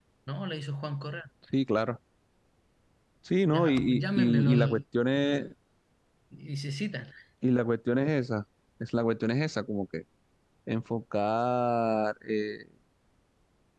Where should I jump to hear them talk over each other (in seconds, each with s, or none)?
3.5 s